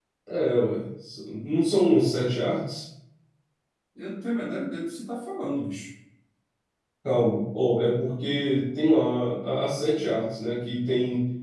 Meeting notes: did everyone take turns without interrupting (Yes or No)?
Yes